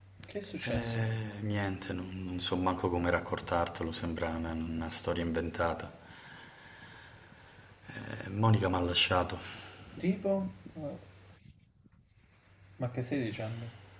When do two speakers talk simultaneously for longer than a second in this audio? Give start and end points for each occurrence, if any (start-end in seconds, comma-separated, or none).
none